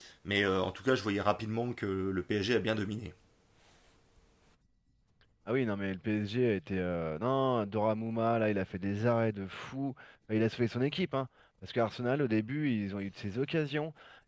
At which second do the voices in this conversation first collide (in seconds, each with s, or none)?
none